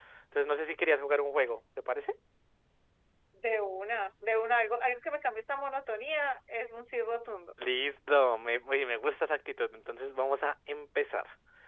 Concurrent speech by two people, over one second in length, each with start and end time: none

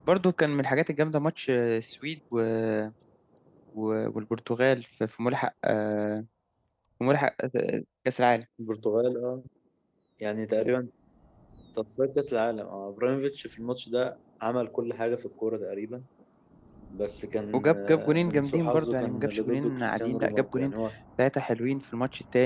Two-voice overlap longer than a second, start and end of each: 17.5-20.7

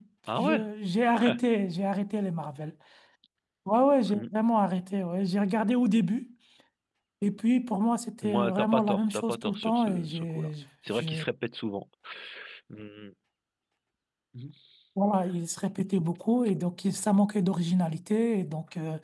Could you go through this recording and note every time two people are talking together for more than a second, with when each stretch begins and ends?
8.2-10.5

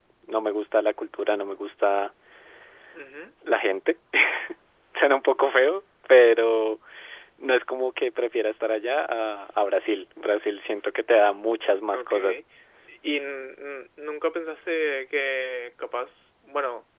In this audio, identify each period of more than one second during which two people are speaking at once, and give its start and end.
none

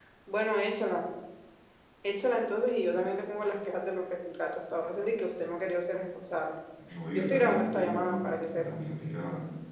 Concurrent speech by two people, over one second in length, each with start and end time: 7.1-8.6

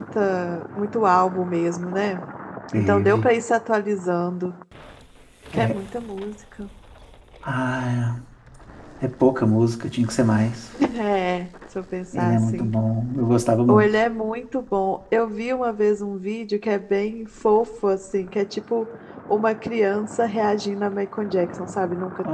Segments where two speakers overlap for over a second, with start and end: none

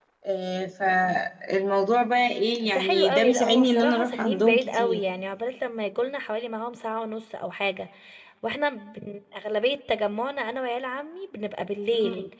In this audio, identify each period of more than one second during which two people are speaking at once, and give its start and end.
2.6-5.0

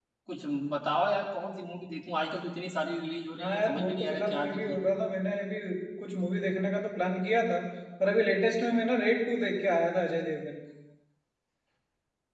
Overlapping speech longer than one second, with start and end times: 3.4-4.8

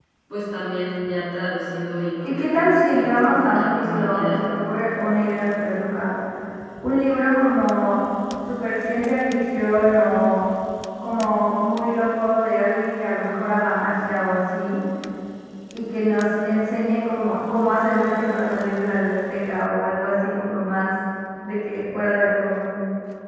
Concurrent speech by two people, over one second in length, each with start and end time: 2.2-4.4

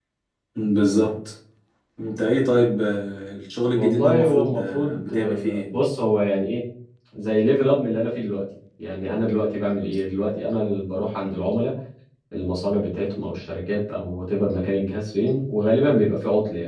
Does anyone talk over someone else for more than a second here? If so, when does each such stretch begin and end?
3.8-5.7

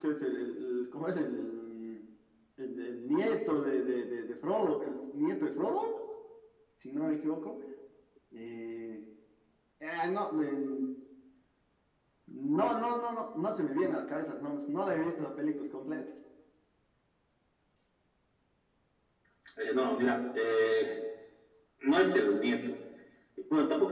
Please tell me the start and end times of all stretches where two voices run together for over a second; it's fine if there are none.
none

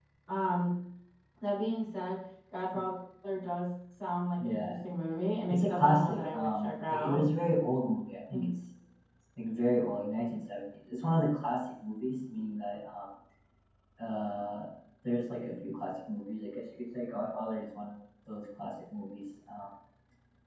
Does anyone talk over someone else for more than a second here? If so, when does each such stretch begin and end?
5.5-7.2

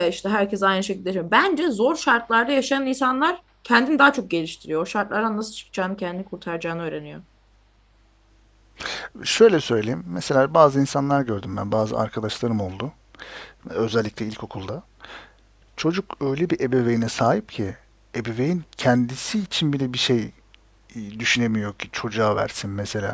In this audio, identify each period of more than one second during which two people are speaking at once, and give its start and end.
none

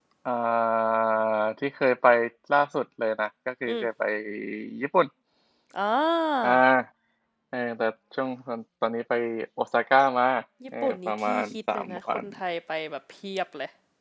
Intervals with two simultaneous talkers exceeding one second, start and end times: 10.8-12.2

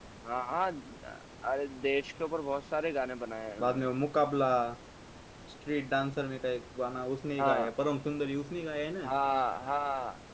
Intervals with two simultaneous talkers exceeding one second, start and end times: none

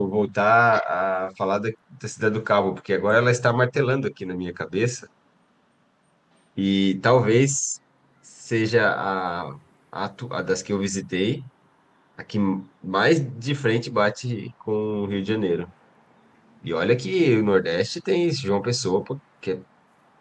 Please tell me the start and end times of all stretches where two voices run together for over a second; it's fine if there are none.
none

